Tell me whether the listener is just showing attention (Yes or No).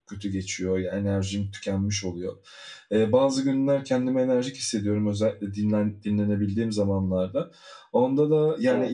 Yes